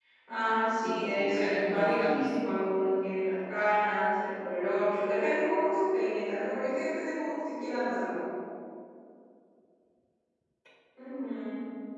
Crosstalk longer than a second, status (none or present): present